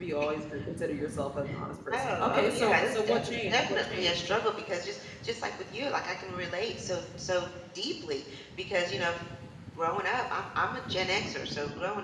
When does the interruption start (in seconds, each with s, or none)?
1.9 s